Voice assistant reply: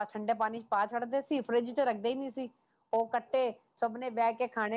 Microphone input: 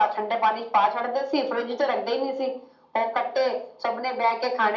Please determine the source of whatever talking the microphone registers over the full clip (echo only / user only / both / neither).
echo only